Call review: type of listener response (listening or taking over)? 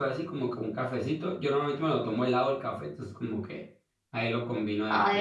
taking over